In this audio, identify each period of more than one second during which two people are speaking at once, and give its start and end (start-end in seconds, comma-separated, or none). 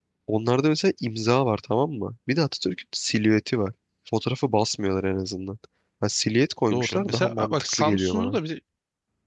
6.7-8.4